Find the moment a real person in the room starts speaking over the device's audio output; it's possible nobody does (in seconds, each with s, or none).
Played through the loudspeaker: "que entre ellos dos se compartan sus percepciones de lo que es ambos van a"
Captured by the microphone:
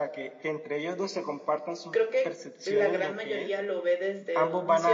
1.9 s